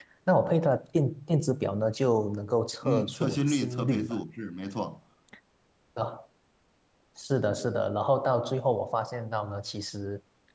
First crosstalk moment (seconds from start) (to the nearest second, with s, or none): 3 s